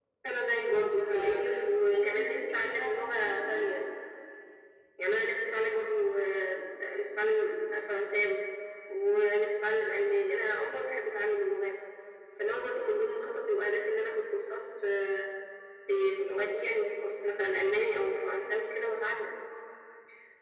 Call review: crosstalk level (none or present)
present